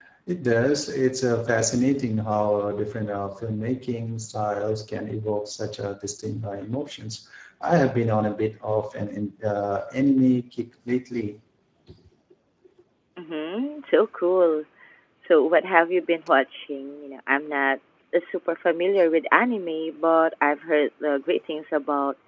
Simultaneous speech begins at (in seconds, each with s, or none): none